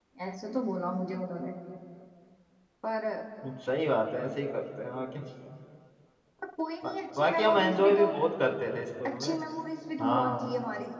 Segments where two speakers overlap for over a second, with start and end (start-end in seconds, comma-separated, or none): 6.8-8.1